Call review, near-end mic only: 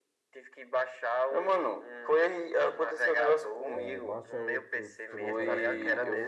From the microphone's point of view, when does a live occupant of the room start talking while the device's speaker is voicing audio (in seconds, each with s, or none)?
3.7 s